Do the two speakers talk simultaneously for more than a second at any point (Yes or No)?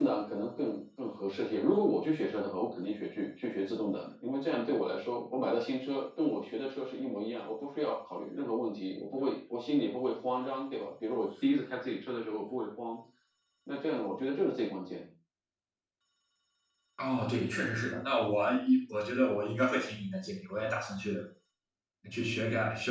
No